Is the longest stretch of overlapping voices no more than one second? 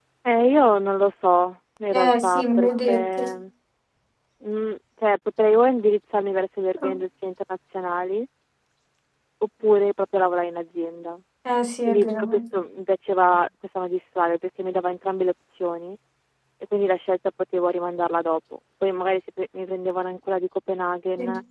No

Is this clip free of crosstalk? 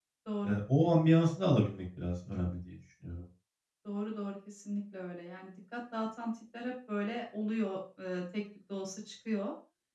Yes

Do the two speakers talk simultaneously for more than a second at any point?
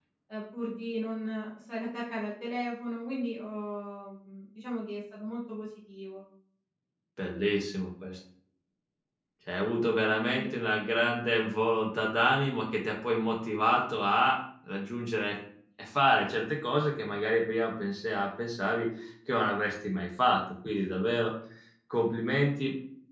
No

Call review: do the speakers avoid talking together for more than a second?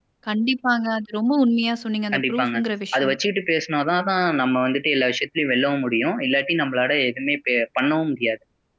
Yes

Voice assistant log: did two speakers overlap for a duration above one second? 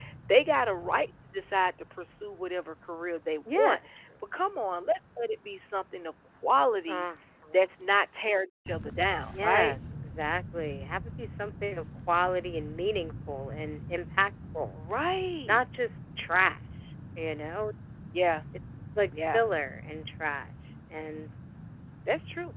No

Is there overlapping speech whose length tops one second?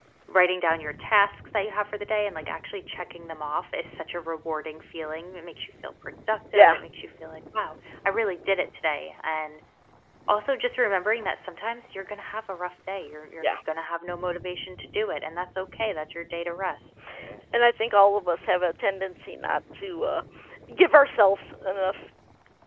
No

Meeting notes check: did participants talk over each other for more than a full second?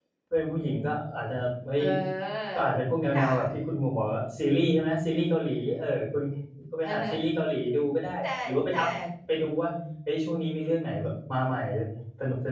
No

